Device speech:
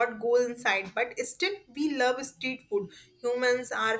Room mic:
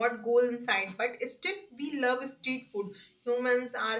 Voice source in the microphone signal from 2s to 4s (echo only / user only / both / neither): echo only